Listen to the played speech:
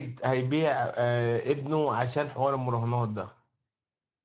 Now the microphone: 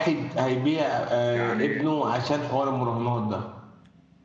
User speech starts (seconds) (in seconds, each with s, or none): 1.3 s